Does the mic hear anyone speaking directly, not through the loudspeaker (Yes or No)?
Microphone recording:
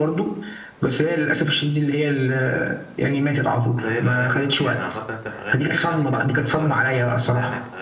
Yes